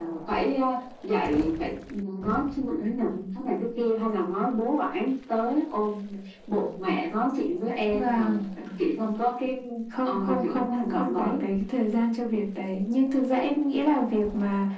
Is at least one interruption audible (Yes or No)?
Yes